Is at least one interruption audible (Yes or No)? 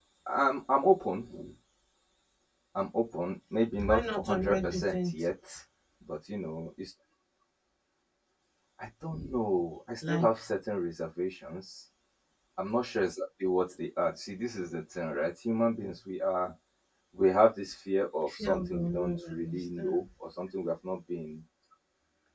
Yes